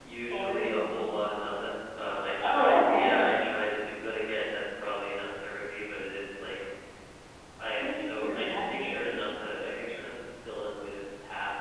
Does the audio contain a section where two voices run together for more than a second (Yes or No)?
Yes